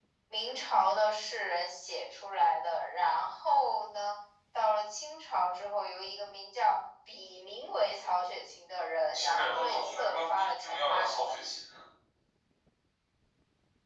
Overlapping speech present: Yes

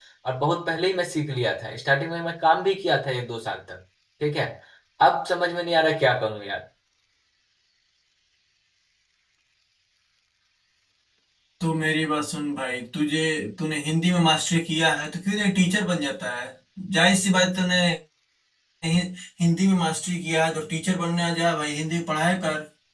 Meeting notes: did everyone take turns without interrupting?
Yes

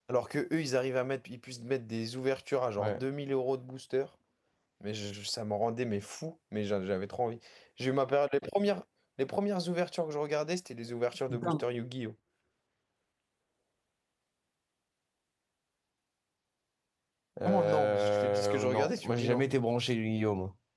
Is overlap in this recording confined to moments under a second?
No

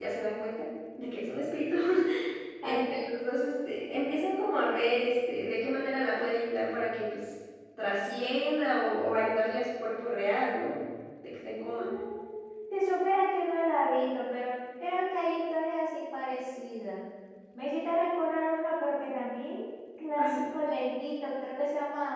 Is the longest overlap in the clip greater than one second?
No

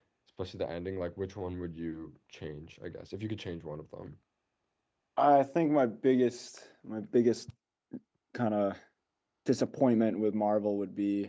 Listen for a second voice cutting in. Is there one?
No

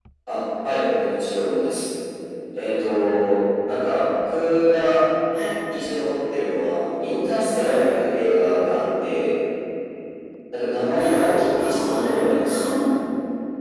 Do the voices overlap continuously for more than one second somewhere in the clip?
Yes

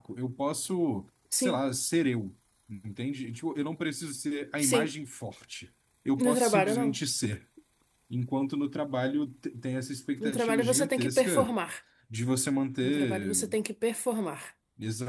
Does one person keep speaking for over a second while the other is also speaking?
Yes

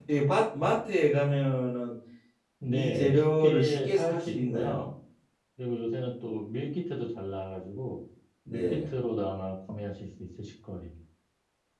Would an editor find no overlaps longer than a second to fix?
No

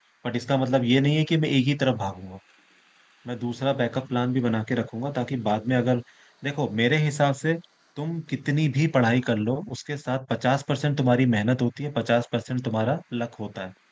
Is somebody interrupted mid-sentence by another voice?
No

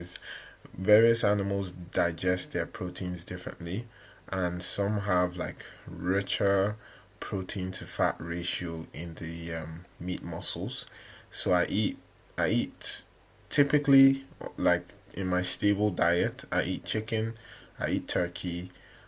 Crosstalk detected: No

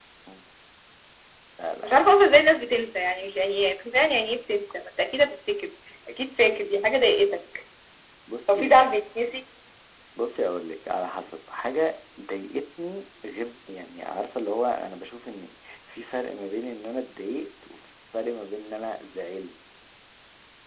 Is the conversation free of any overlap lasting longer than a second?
Yes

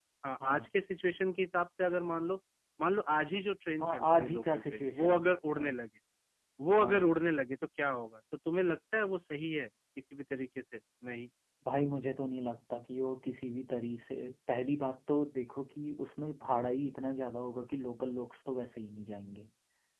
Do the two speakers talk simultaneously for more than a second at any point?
Yes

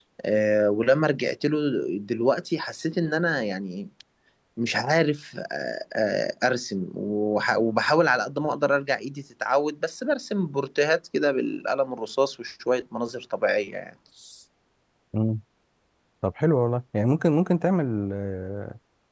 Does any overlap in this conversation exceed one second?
No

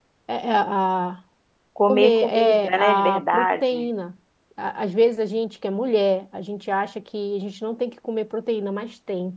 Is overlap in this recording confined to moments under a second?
No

